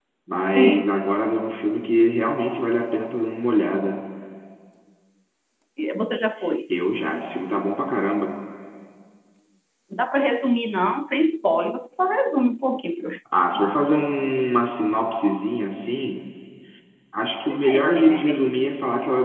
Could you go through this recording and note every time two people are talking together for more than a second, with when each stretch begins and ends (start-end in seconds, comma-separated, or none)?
none